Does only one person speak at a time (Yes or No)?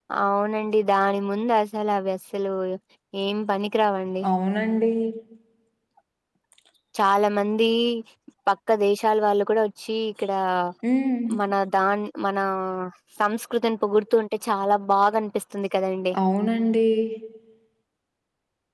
Yes